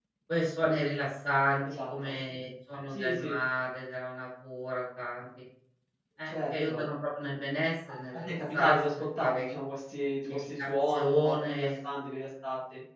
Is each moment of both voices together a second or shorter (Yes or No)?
No